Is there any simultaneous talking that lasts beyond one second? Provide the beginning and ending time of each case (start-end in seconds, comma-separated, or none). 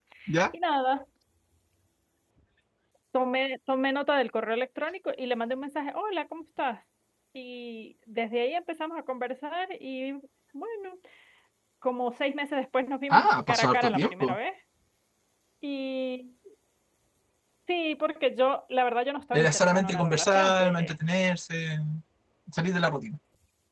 13.1-14.4, 19.3-20.9